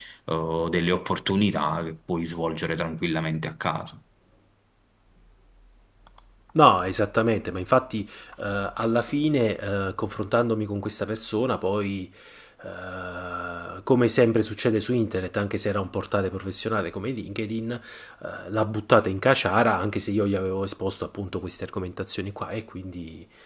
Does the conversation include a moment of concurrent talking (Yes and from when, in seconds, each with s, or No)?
No